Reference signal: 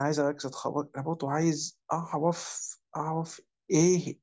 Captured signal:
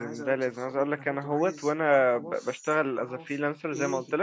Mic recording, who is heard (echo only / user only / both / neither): both